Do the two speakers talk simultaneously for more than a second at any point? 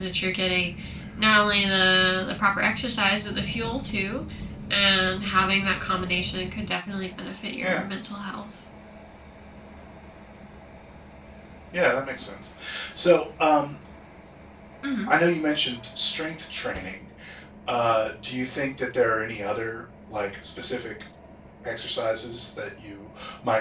No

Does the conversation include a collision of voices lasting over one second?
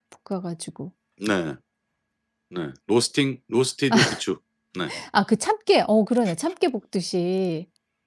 No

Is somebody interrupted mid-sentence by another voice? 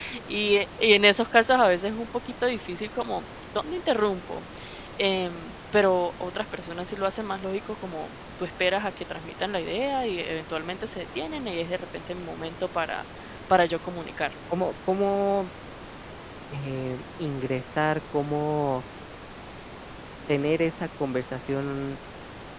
No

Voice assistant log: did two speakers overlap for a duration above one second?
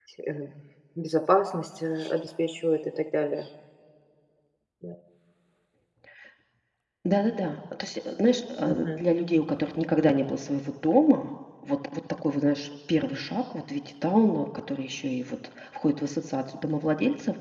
No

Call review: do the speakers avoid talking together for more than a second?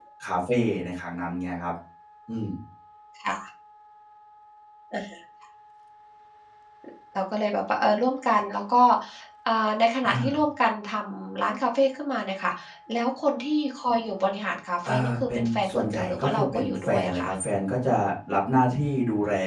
No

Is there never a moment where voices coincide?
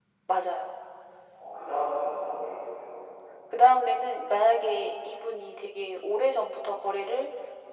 Yes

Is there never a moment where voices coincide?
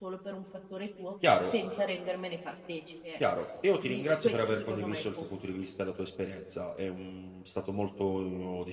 No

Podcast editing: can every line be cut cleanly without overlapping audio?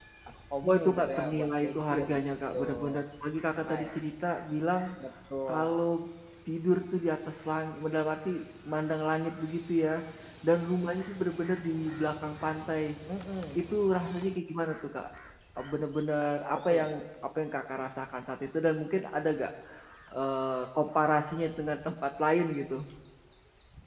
No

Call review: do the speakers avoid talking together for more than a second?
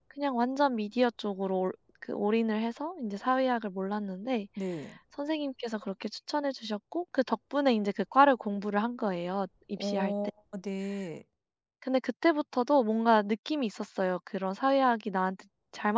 Yes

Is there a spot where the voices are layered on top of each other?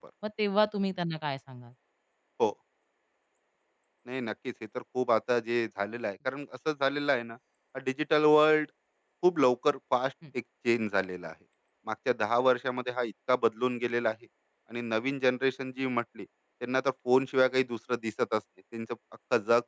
No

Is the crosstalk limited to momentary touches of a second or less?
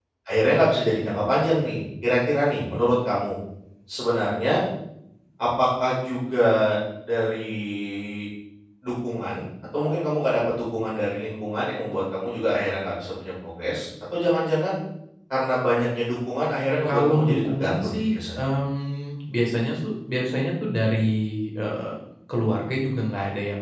No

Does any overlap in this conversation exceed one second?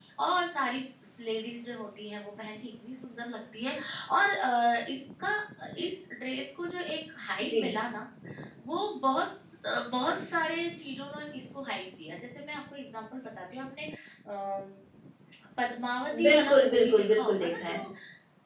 Yes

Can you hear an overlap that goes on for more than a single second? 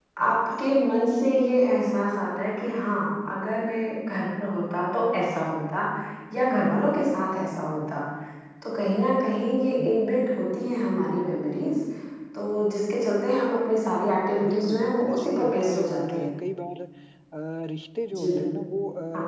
Yes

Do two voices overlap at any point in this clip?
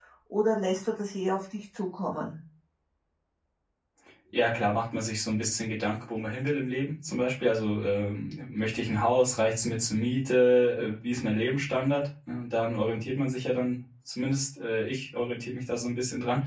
No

